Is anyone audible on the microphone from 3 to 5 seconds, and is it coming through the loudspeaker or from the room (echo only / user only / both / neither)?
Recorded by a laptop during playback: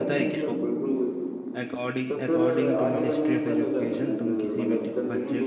both